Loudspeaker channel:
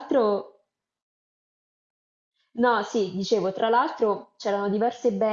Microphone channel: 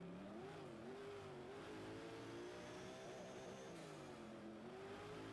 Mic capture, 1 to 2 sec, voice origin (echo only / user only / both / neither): neither